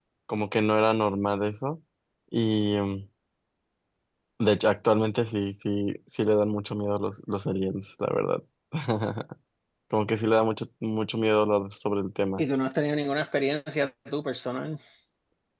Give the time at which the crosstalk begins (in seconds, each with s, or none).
none